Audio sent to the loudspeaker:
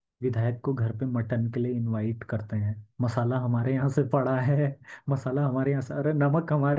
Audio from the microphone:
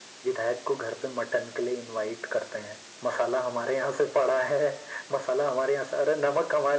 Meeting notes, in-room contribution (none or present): none